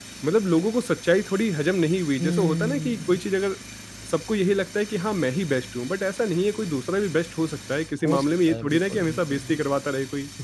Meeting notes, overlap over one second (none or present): present